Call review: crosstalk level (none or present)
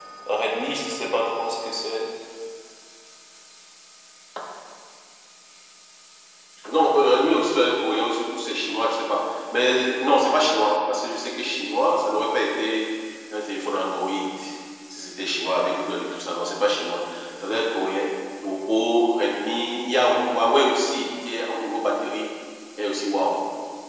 none